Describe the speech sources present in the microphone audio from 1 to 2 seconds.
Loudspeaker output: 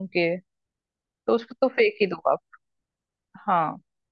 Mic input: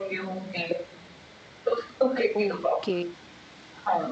echo only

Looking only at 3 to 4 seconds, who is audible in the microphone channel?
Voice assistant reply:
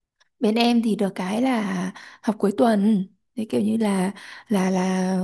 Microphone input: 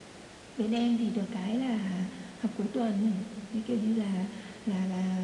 echo only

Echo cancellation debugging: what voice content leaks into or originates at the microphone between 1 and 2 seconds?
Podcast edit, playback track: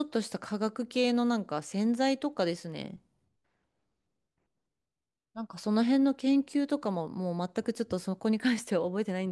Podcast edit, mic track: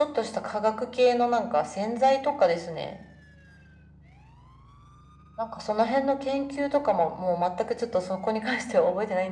echo only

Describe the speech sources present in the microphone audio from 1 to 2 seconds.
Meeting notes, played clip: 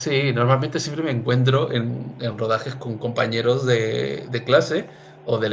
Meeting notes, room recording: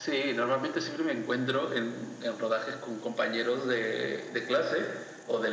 echo only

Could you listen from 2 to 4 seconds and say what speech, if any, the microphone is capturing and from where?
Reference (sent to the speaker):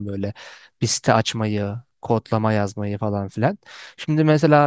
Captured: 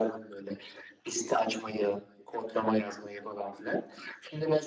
echo only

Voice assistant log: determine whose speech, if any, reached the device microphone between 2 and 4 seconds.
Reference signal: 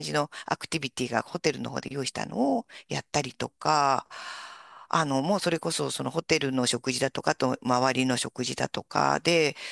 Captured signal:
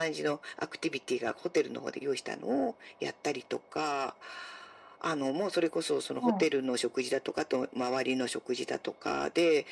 echo only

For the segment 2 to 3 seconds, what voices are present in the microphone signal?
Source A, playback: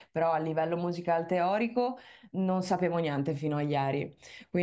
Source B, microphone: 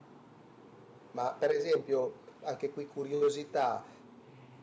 user only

